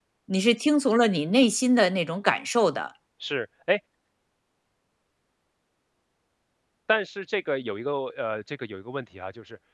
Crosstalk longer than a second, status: none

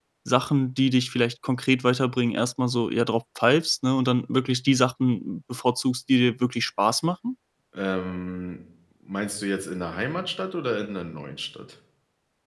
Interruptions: none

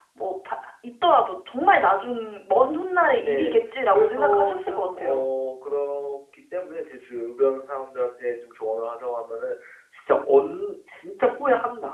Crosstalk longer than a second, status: present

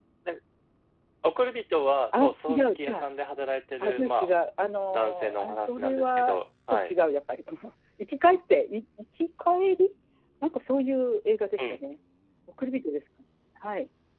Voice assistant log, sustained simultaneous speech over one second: present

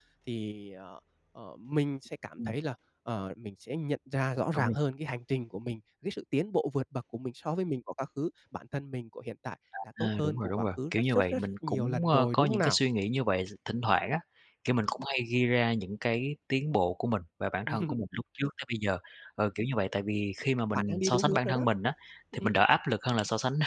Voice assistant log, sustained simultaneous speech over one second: present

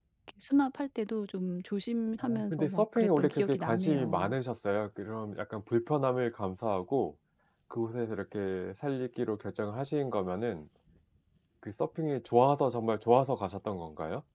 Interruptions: present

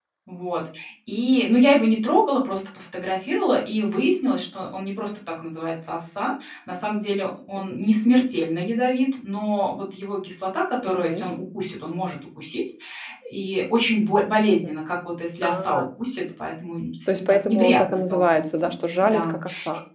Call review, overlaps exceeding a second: present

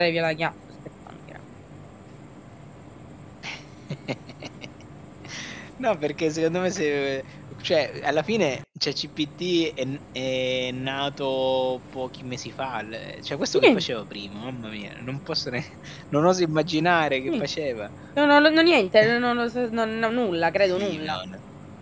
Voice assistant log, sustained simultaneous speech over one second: none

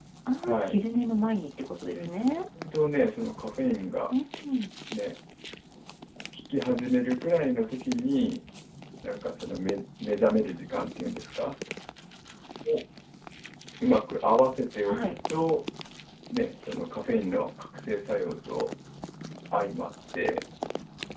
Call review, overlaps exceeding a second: none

